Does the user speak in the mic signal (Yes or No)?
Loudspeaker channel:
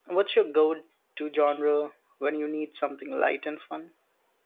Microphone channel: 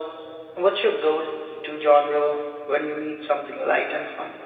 No